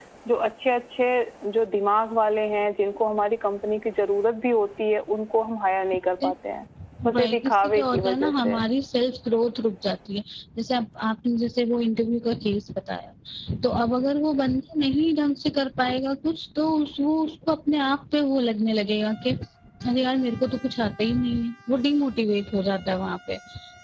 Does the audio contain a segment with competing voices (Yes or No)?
Yes